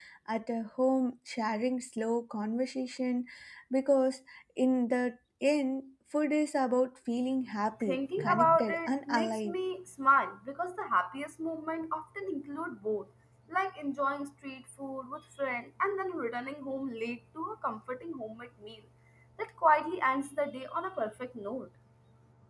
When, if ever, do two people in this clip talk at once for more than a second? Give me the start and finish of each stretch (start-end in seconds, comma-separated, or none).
7.8-9.5